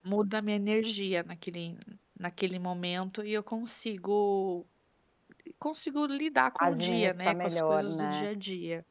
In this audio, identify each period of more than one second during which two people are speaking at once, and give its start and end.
6.6-8.3

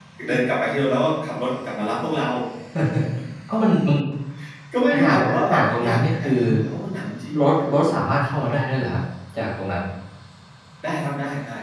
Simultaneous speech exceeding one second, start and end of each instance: 4.9-6.4

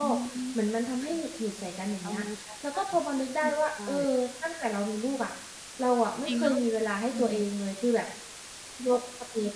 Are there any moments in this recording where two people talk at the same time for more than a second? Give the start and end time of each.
none

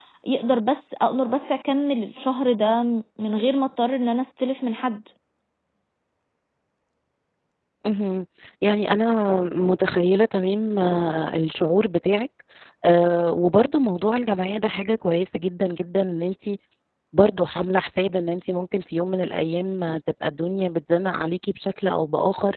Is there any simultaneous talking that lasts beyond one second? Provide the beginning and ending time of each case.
none

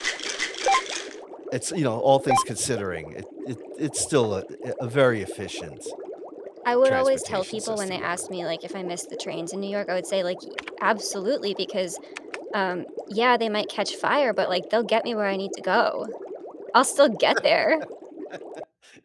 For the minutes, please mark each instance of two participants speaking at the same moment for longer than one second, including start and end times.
6.8-8.2

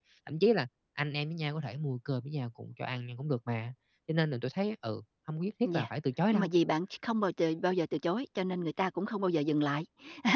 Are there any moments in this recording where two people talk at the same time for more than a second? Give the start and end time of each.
none

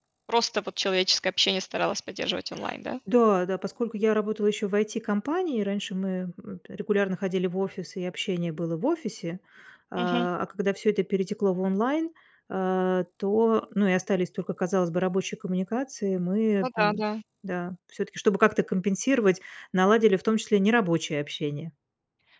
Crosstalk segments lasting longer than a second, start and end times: none

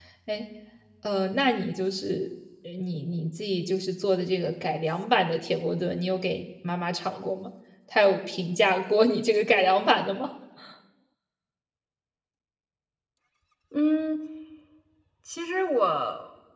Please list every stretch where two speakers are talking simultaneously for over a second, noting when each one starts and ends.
none

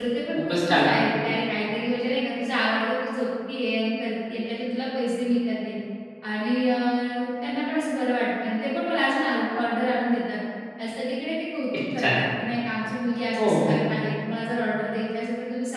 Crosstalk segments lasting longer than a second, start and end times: none

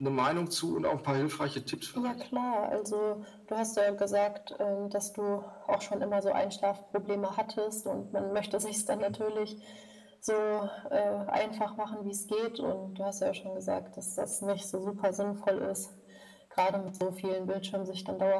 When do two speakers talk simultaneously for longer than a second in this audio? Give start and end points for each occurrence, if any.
none

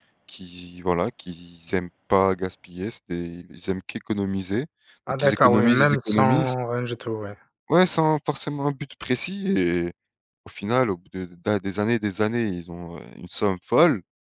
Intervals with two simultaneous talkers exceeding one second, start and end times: 5.2-6.5

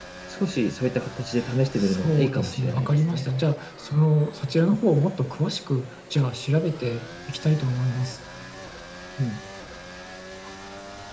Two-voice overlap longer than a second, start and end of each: 1.8-3.2

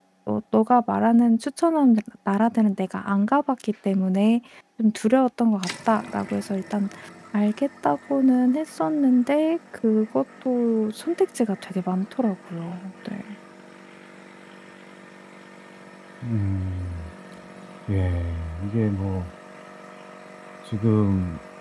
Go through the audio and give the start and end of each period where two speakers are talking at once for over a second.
none

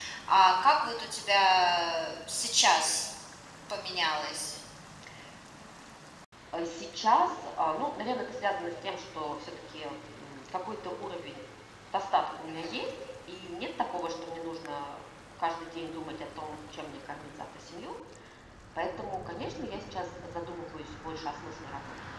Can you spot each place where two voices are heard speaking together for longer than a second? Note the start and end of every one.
none

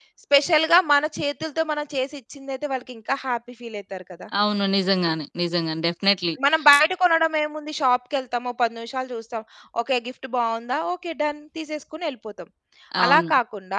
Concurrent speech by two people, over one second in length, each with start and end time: none

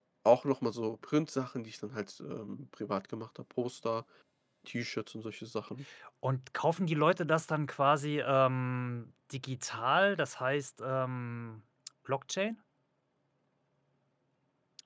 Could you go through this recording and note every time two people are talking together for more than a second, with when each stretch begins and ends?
none

